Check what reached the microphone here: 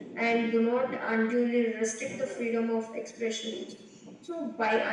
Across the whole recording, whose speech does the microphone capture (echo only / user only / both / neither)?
echo only